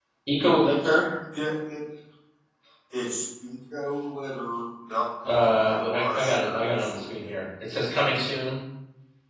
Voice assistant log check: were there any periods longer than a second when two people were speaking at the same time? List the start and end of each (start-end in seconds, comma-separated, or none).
5.3-7.3